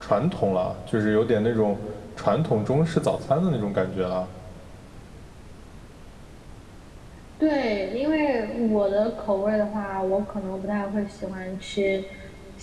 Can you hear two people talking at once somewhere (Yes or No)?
No